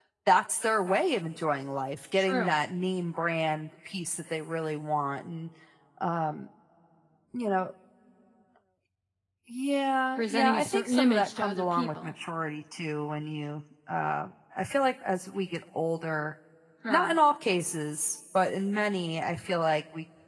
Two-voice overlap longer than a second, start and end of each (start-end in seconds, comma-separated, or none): 10.2-12.1